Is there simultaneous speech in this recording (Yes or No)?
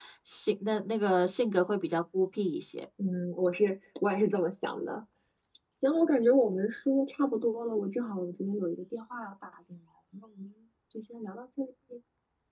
No